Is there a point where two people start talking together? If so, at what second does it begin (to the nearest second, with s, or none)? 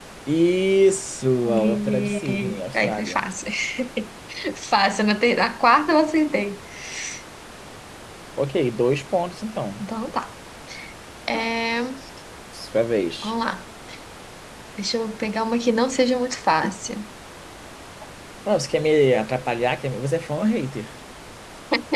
1 s